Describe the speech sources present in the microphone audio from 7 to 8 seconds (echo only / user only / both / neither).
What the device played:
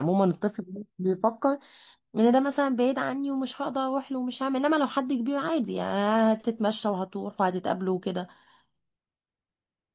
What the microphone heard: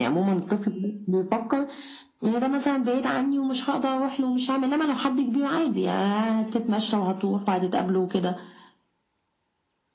echo only